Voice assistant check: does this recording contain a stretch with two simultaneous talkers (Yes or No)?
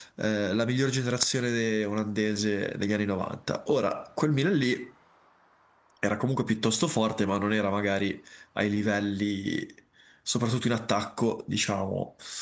No